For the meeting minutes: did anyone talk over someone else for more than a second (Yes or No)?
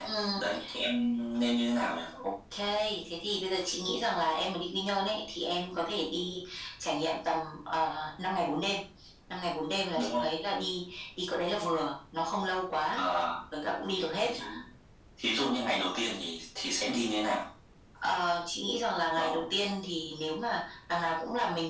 No